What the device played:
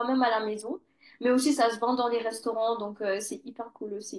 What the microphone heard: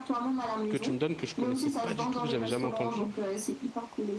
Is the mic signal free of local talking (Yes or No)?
No